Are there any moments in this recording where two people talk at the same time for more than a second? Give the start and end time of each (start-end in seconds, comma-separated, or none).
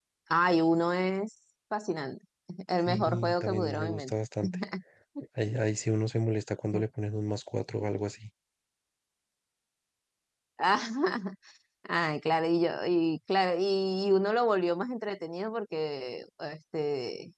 2.9-4.1